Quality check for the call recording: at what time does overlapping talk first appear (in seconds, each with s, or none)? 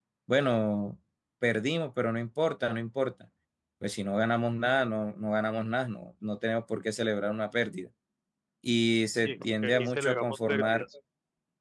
9.2 s